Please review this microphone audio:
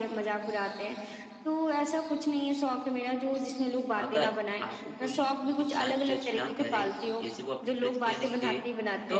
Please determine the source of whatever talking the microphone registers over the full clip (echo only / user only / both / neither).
both